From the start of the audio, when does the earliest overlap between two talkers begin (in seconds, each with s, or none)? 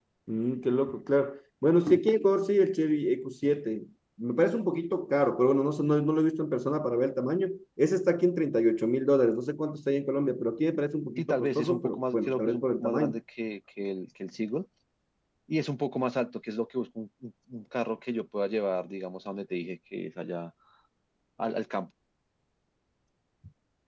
11.2 s